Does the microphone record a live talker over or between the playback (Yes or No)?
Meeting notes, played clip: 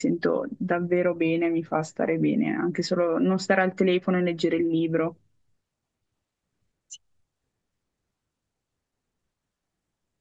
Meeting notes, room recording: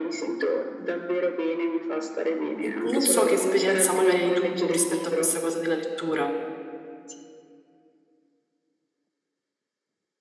Yes